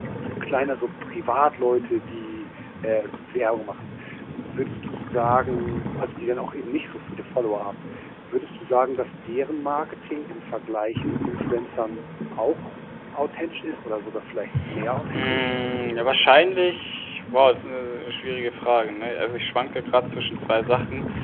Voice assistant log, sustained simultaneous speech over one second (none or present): none